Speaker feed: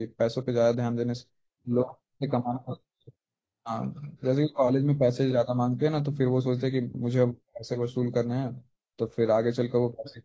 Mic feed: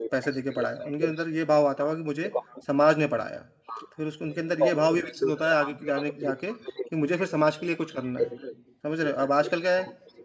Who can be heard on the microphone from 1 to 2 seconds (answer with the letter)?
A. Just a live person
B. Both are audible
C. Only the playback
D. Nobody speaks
B